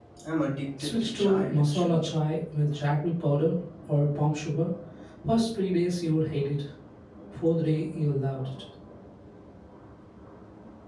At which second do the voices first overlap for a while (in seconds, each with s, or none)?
0.8 s